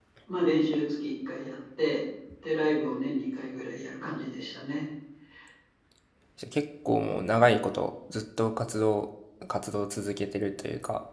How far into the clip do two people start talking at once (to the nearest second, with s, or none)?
none